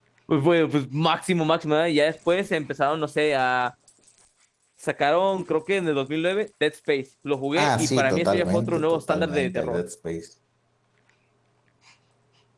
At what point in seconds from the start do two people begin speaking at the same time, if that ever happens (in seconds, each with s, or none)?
7.6 s